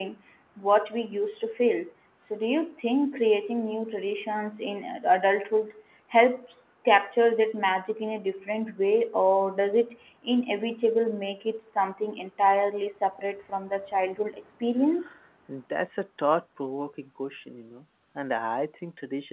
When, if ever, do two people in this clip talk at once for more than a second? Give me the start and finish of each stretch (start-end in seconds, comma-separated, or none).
none